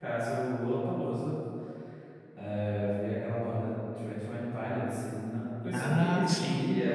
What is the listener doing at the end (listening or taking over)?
listening